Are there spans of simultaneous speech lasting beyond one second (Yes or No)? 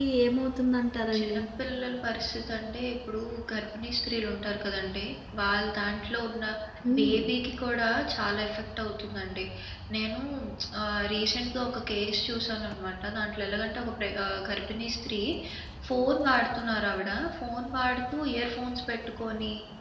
No